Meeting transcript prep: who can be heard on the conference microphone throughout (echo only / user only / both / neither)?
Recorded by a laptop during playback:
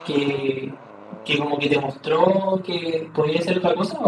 echo only